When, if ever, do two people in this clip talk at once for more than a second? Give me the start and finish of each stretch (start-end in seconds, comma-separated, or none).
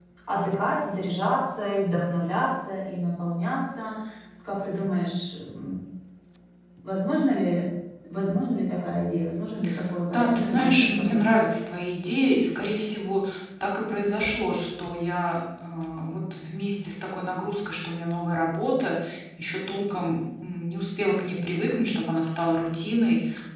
10.1-11.4